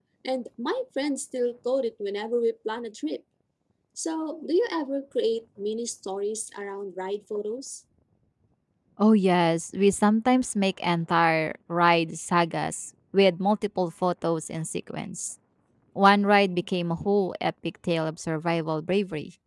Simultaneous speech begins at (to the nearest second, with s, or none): none